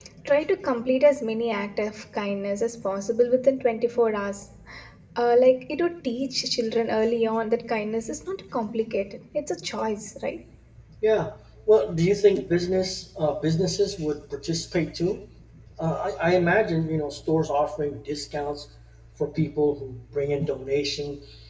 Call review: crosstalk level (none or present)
none